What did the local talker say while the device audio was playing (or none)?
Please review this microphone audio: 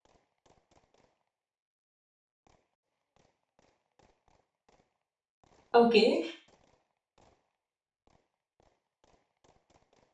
Okay,